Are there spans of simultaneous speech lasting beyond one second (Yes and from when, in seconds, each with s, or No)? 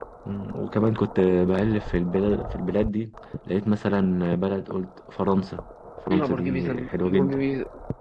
Yes, from 6.1 s